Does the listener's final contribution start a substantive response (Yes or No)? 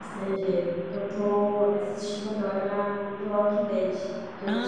Yes